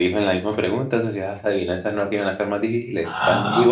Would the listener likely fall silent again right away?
No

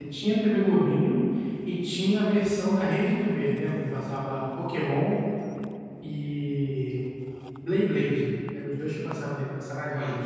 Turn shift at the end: Yes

